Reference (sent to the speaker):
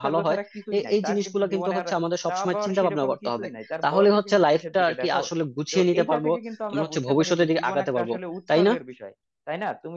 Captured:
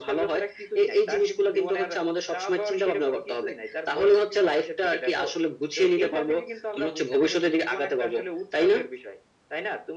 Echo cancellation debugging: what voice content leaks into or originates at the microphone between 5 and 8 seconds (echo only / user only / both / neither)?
echo only